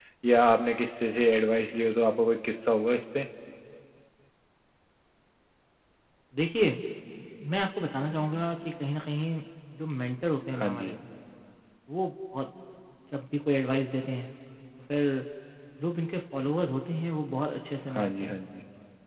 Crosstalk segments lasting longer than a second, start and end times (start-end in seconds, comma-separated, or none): none